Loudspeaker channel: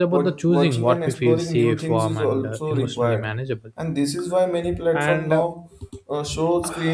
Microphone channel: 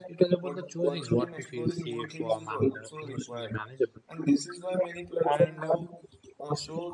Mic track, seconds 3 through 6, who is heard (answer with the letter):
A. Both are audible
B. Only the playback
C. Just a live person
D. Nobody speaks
B